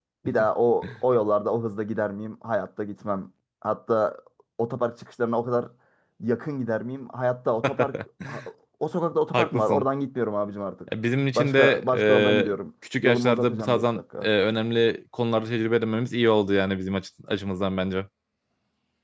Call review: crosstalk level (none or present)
present